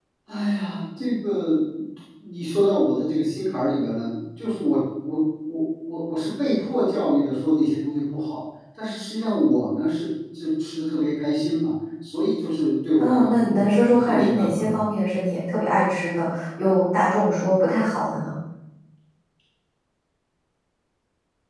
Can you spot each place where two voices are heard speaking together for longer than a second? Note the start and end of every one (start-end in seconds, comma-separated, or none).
13.0-14.8